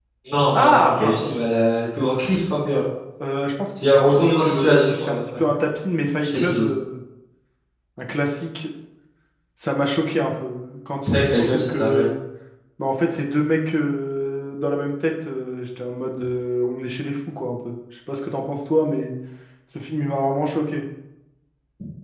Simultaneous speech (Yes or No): Yes